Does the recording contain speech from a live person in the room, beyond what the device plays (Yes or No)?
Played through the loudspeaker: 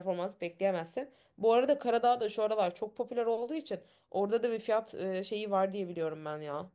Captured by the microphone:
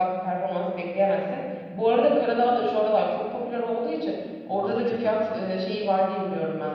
Yes